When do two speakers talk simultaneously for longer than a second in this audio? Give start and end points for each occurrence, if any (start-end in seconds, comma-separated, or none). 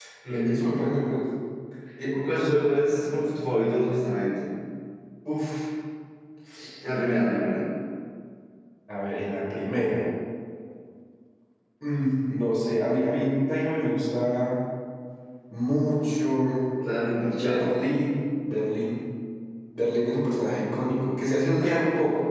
none